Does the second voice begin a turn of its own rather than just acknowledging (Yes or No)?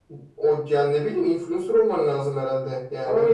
Yes